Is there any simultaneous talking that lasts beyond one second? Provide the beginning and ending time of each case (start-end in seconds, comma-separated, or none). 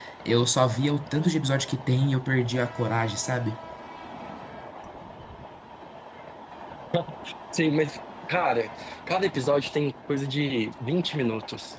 none